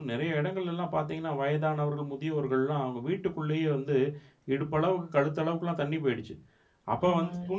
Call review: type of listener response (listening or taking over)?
listening